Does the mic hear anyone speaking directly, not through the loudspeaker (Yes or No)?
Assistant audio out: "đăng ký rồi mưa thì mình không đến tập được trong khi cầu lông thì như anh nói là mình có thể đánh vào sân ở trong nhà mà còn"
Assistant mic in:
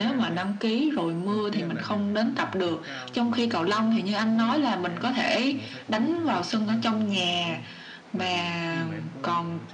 Yes